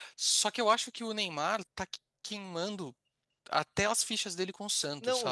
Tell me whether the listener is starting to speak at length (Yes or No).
Yes